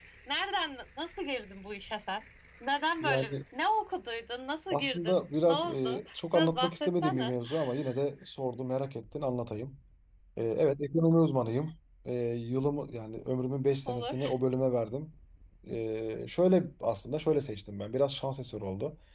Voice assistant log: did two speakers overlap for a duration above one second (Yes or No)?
Yes